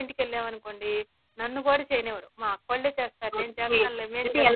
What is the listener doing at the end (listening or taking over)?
taking over